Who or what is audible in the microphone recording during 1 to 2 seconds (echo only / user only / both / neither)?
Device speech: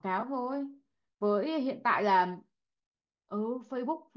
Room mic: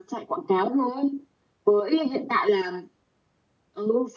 echo only